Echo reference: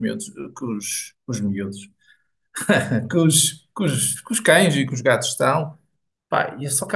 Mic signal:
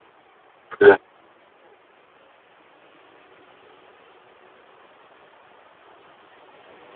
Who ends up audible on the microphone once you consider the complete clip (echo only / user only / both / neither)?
user only